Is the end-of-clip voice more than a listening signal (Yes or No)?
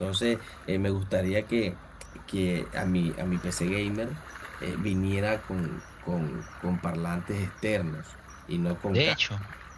Yes